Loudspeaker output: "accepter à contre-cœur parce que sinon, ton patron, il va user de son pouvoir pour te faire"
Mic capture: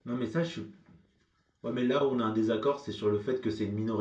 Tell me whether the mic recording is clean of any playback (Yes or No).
Yes